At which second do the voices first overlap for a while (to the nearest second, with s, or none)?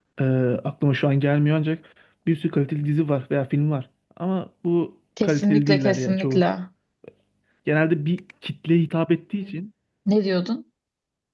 5 s